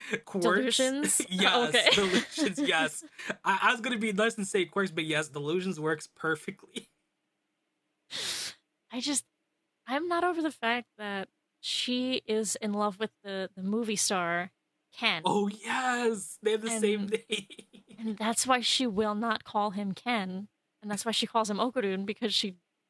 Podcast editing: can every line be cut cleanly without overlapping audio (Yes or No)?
No